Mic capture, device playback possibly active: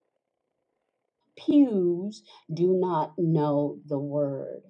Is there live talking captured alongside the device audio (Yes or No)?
Yes